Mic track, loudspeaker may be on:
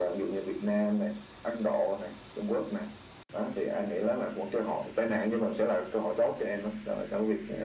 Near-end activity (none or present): none